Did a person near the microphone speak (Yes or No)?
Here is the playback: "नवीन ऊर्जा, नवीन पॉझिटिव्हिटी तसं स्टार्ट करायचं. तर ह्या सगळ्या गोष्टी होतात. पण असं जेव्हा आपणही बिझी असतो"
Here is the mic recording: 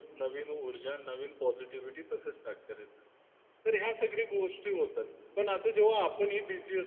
No